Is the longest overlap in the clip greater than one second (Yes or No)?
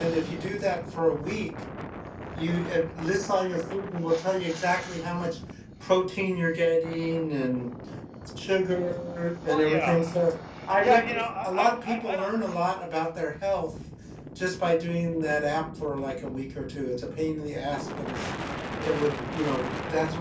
Yes